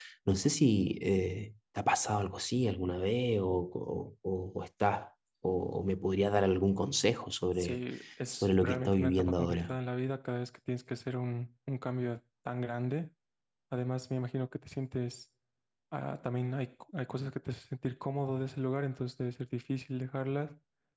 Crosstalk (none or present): present